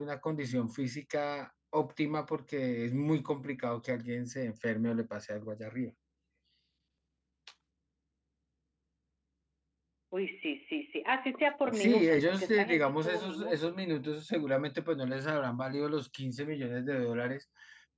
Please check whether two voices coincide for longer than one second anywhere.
Yes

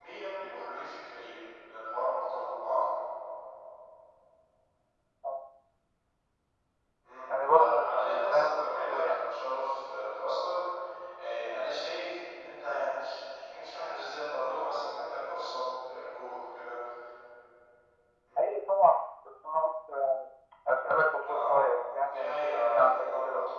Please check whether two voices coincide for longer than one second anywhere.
Yes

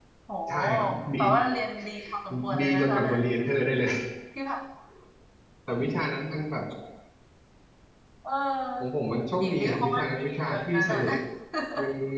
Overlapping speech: Yes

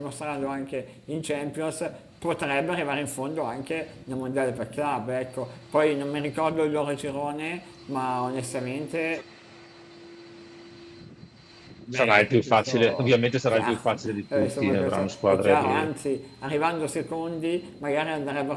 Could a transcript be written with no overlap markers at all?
No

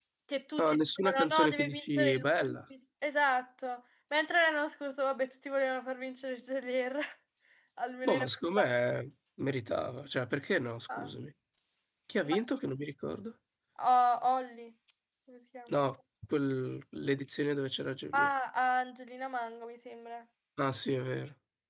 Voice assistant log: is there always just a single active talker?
No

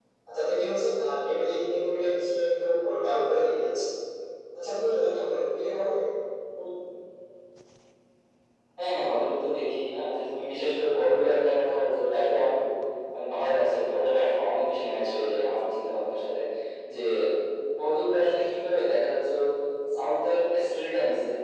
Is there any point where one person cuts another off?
No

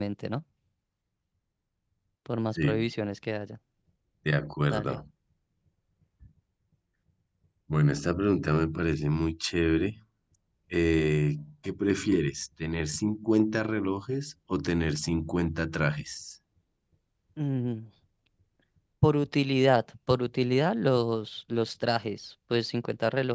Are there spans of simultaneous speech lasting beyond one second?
No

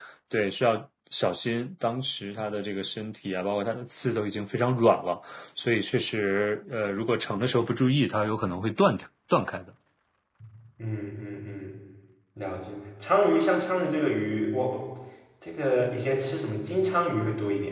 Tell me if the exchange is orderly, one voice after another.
Yes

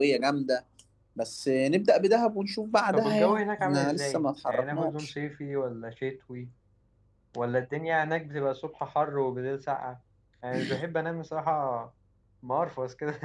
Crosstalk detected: Yes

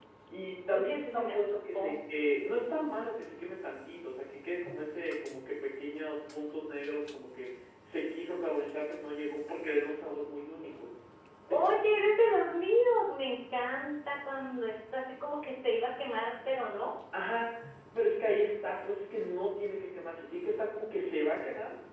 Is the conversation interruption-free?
No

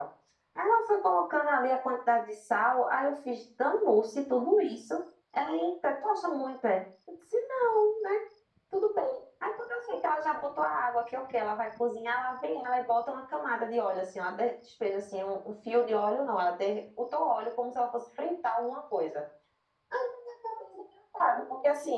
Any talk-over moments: No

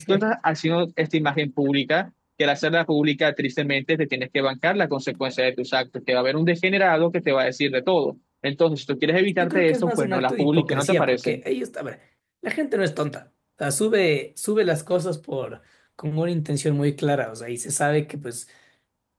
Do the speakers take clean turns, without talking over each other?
No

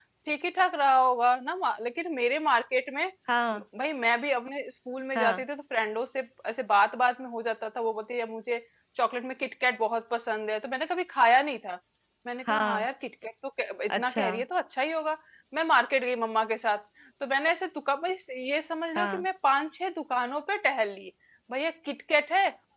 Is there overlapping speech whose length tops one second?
No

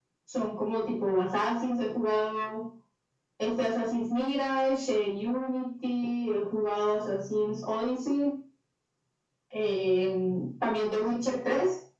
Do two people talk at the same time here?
No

